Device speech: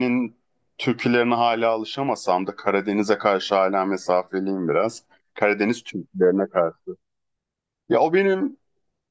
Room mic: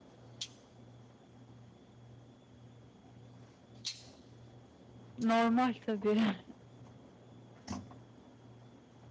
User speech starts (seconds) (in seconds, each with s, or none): 5.2 s